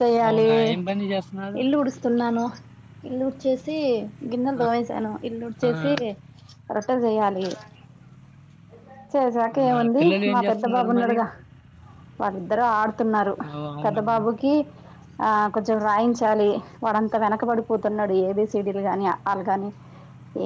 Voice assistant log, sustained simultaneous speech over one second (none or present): present